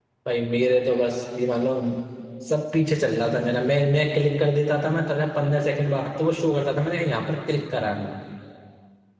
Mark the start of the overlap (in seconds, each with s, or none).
none